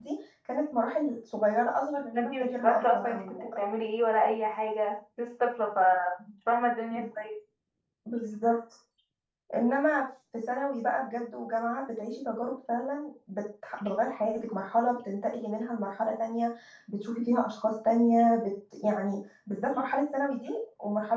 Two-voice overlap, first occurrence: 2.1 s

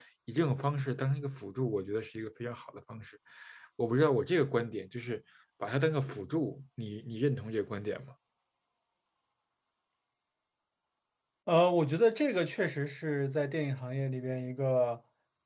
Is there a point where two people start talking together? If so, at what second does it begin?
none

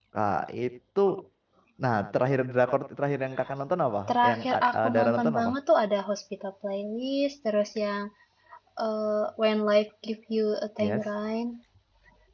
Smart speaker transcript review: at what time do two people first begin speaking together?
4.1 s

